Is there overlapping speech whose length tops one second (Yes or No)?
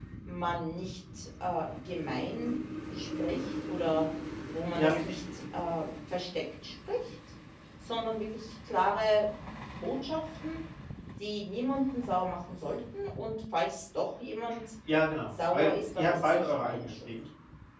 Yes